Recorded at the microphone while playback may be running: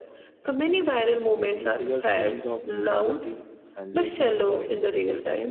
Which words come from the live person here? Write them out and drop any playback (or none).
which triggers feelings of inequality, anxiety, or envy.